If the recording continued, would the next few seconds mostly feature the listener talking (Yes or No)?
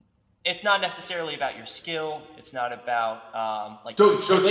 Yes